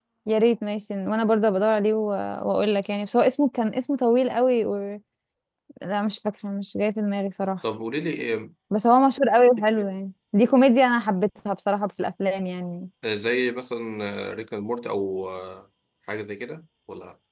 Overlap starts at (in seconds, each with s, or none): none